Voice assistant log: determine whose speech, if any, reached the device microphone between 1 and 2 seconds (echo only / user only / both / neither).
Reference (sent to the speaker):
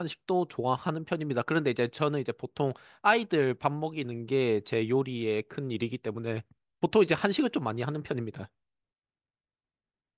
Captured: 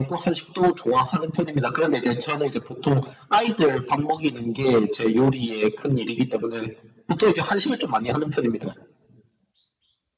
echo only